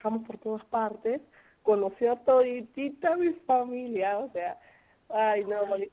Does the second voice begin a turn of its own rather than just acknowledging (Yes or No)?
Yes